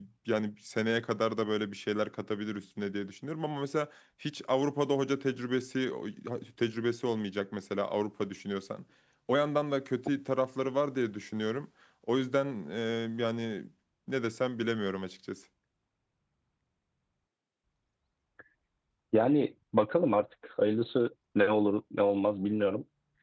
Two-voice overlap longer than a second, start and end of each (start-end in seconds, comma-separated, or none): none